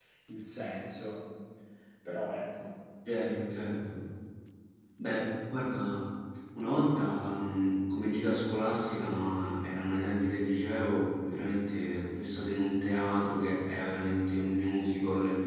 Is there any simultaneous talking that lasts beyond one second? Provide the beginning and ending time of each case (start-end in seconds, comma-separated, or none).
none